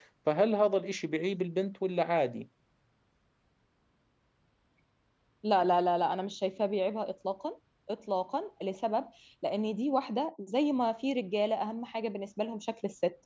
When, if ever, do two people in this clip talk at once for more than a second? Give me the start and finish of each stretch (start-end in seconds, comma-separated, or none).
none